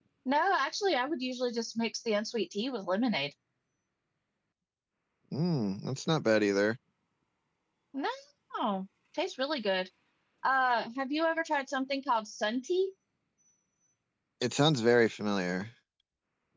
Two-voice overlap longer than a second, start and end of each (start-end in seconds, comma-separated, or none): none